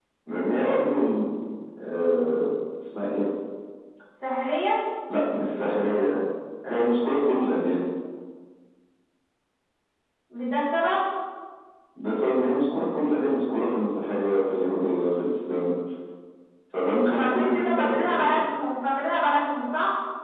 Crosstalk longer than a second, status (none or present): present